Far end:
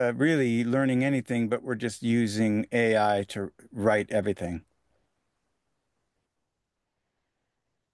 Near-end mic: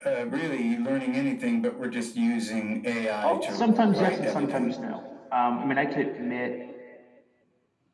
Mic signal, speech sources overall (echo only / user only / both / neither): both